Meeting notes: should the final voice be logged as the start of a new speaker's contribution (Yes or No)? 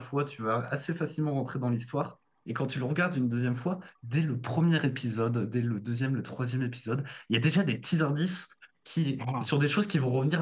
No